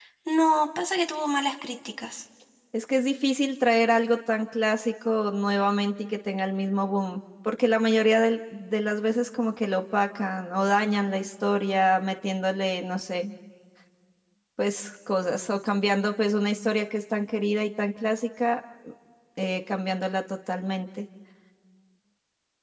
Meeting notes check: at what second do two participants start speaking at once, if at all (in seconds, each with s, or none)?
none